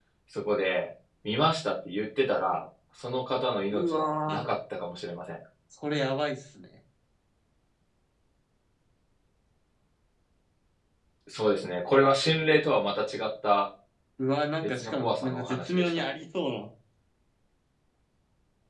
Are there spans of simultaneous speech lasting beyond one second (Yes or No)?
Yes